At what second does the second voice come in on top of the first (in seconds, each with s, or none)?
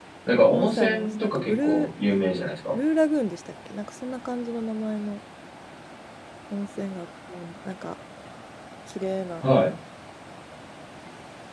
0.5 s